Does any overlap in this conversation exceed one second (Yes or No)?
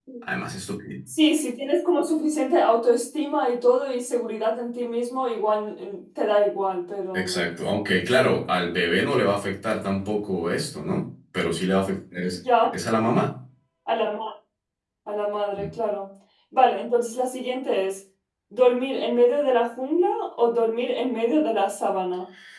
No